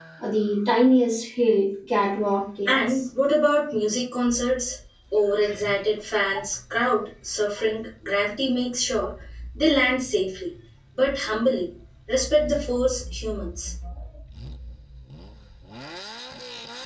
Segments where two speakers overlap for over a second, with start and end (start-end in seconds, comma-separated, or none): none